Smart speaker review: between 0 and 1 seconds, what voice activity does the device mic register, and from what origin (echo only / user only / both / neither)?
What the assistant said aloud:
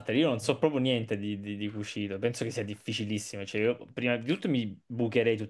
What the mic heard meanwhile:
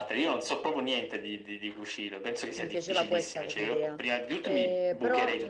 echo only